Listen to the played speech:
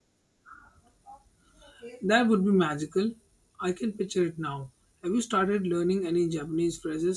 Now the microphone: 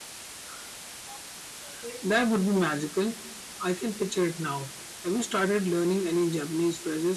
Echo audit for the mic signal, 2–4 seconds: echo only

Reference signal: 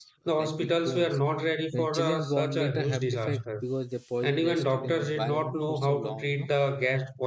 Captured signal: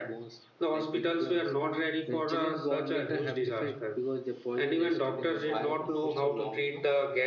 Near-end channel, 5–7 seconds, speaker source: both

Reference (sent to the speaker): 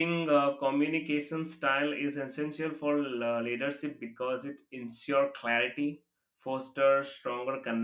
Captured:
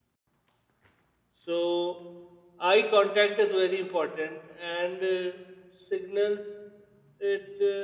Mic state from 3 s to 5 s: user only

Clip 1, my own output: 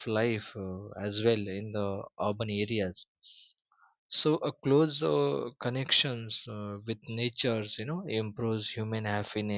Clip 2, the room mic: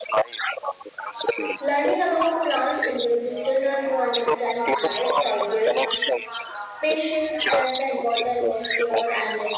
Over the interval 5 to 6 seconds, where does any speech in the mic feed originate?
both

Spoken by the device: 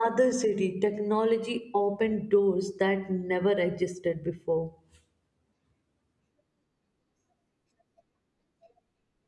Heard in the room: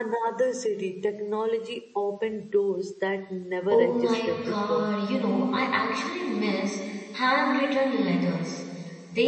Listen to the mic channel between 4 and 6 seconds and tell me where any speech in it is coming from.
both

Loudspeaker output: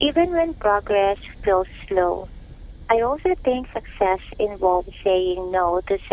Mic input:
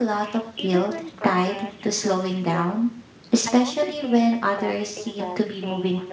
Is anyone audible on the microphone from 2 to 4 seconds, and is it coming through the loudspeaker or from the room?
both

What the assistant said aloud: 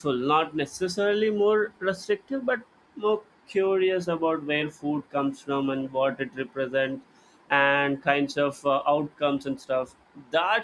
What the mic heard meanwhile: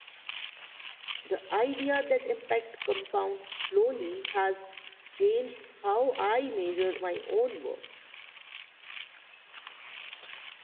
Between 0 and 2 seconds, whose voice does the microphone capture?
user only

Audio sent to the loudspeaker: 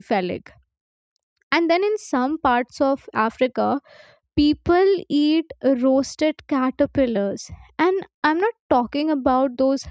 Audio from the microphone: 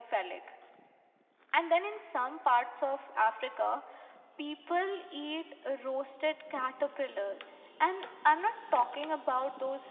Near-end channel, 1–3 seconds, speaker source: echo only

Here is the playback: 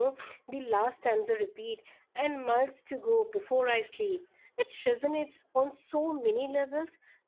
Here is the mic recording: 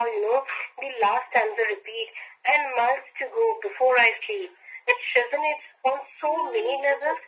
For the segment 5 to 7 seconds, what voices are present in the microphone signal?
both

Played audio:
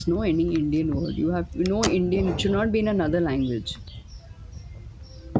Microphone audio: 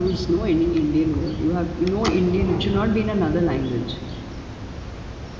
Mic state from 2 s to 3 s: echo only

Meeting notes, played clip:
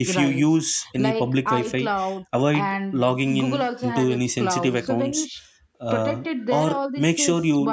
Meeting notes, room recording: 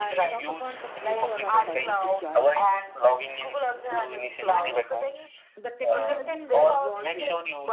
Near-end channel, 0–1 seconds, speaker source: both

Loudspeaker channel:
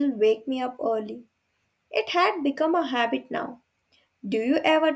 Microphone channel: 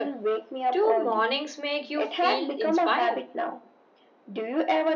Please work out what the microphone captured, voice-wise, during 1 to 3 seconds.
both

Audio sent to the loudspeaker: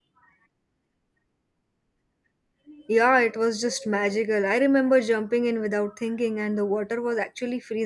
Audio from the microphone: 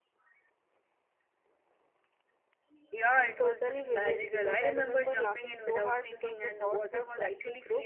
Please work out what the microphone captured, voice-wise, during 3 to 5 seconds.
both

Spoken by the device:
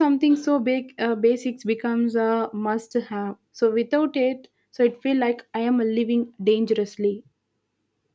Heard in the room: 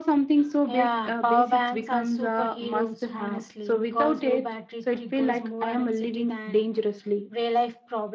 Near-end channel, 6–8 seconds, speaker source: both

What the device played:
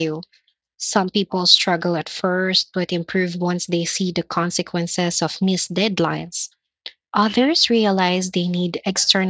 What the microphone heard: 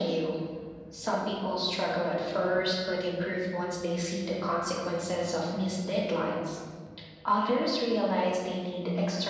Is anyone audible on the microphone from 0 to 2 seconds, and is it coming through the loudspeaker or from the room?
echo only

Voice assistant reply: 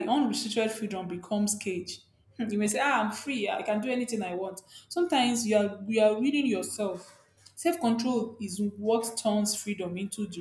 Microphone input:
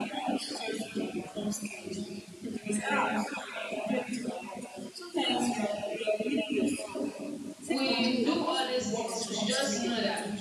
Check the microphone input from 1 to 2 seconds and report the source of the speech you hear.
echo only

